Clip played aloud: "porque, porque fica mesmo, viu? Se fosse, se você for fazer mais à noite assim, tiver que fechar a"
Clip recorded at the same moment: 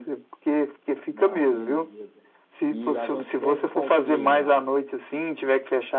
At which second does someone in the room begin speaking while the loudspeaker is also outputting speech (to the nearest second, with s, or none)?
1 s